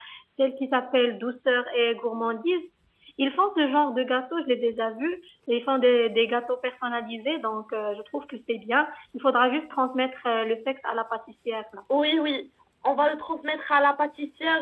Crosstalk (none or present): none